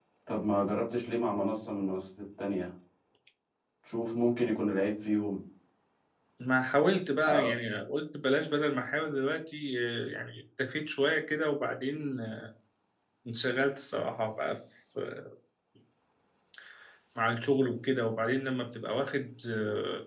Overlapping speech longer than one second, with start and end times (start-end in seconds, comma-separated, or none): none